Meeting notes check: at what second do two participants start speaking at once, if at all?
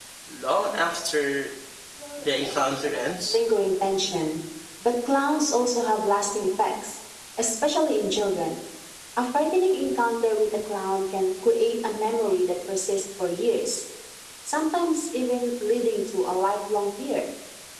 2.2 s

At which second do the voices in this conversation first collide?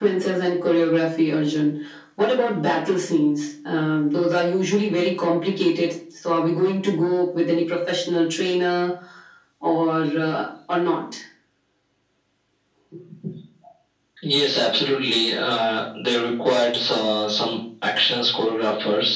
none

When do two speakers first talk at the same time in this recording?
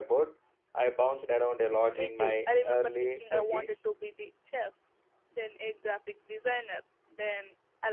1.9 s

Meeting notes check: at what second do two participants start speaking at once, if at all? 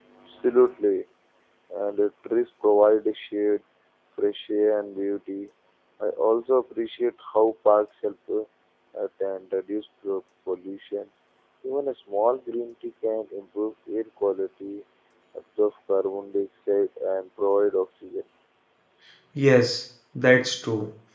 none

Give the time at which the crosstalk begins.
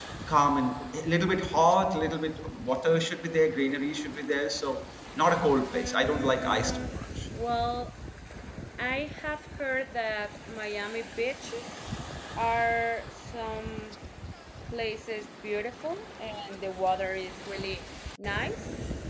5.7 s

